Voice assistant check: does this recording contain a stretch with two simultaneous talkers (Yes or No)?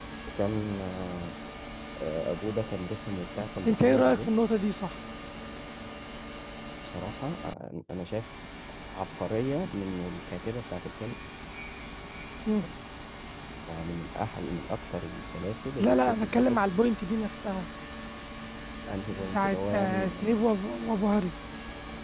Yes